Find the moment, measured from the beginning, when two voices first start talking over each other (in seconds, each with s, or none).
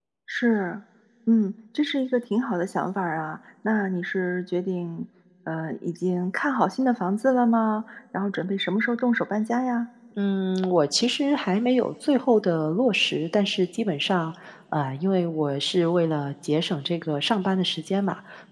none